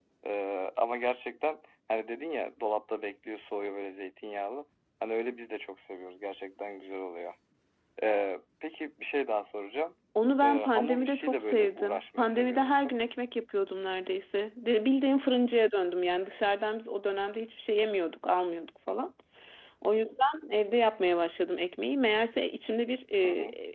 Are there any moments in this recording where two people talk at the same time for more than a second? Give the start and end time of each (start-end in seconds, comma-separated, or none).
10.4-12.7